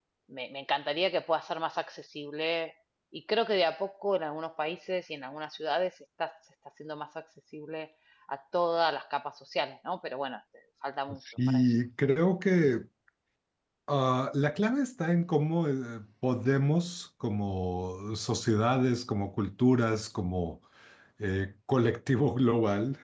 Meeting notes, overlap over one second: none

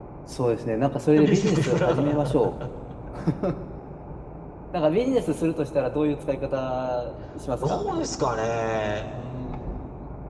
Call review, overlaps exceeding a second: present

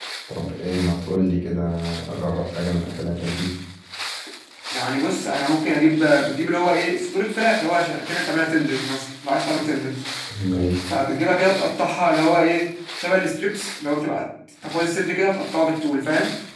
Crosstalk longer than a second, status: none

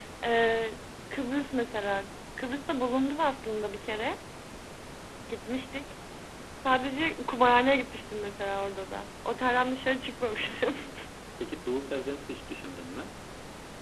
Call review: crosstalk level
none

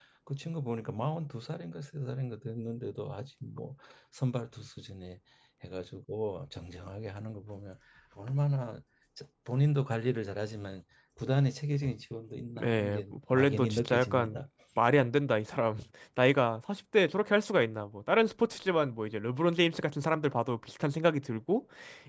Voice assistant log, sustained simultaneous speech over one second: present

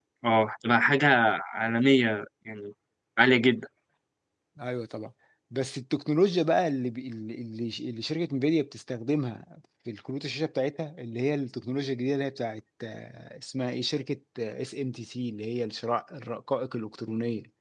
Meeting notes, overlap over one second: none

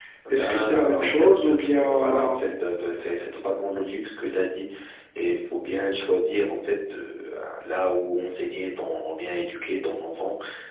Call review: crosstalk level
present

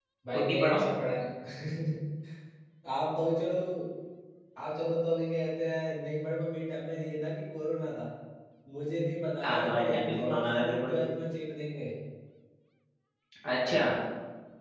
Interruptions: present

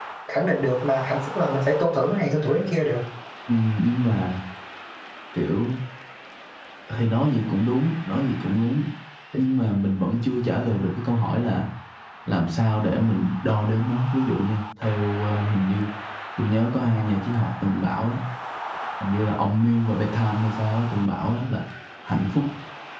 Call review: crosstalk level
none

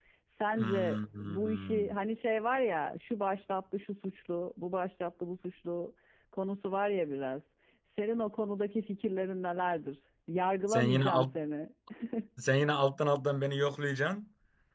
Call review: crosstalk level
present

